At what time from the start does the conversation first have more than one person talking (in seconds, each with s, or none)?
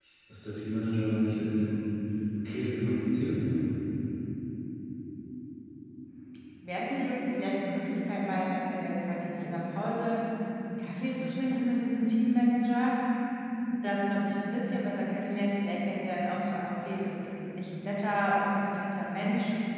none